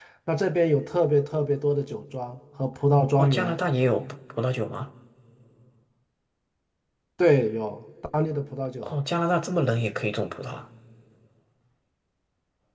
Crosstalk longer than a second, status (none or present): none